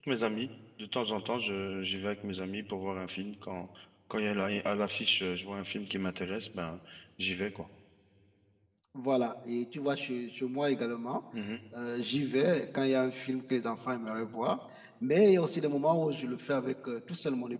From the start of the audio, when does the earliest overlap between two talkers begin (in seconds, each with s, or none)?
none